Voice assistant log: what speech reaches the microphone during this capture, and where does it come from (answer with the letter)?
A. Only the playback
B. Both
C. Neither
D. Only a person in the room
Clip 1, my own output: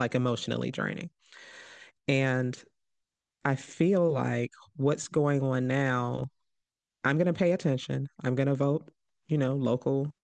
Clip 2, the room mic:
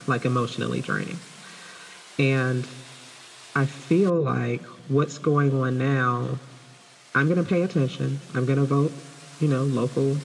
A